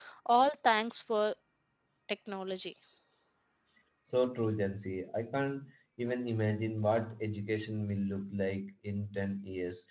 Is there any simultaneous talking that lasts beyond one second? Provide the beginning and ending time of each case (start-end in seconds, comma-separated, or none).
none